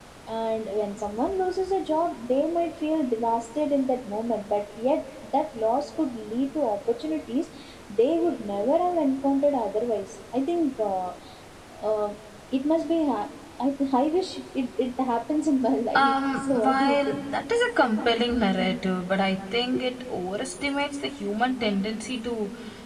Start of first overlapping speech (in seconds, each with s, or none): 16.0 s